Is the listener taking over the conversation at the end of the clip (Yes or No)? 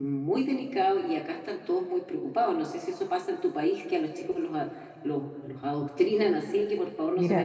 Yes